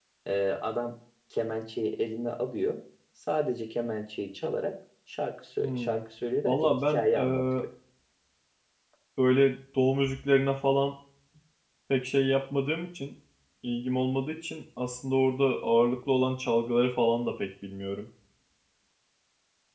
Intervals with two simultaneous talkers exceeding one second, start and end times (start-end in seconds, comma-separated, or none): 6.4-7.6